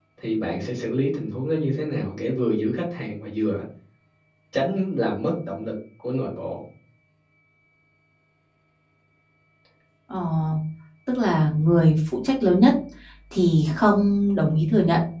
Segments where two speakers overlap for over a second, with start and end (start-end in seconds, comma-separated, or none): none